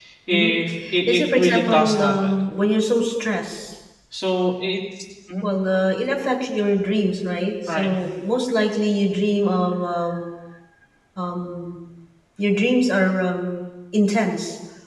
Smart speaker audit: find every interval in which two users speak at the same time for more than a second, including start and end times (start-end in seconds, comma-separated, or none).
1.1-2.4